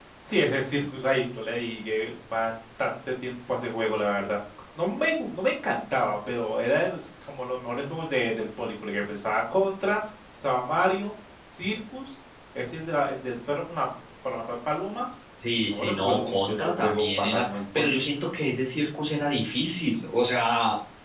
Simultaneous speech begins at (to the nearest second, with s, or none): 15 s